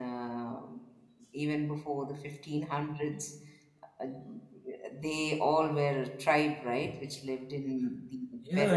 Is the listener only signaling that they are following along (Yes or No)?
No